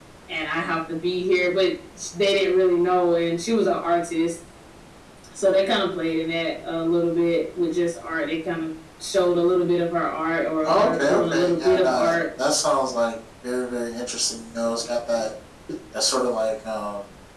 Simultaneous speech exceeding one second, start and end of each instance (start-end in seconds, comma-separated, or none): 10.6-12.2